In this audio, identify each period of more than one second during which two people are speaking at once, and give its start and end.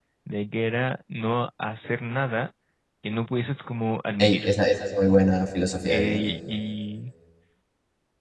none

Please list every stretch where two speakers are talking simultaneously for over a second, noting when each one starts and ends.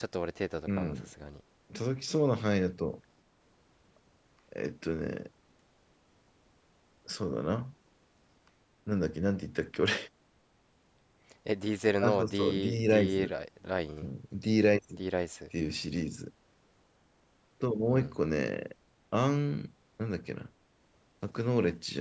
12.0-13.3

